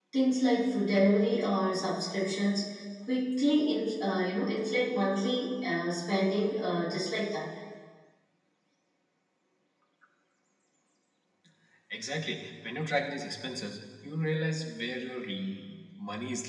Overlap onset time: none

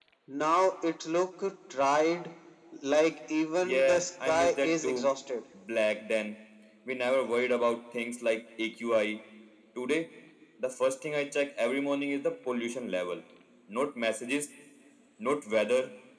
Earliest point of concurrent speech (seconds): 4 s

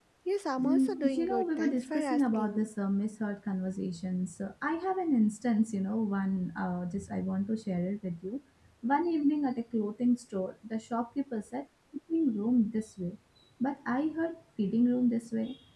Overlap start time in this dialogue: 1 s

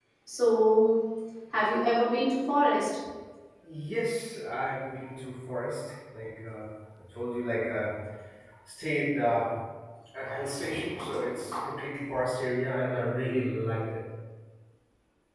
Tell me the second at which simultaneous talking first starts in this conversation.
none

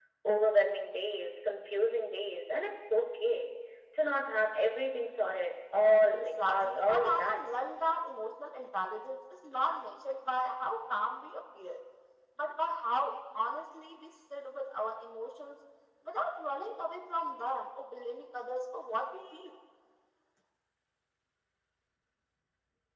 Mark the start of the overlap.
6 s

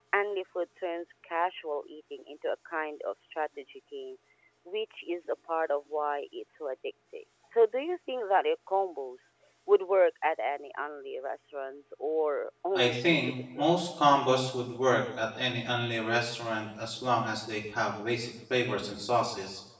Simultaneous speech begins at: 13 s

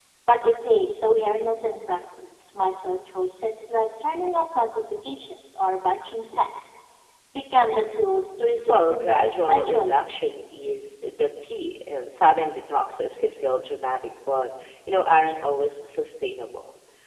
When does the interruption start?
9 s

